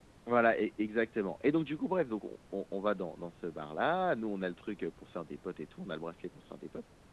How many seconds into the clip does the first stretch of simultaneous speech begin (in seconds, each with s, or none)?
none